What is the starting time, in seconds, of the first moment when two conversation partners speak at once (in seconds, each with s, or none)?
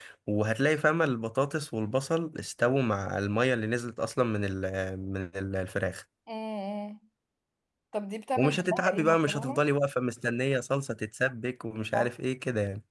8.4 s